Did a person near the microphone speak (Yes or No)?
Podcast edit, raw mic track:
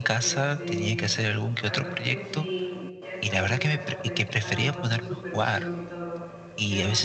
Yes